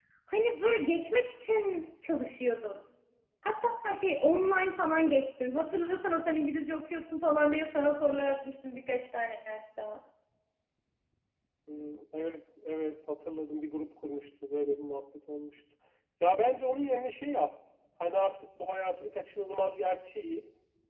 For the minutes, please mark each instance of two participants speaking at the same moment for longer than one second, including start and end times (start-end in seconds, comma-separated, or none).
none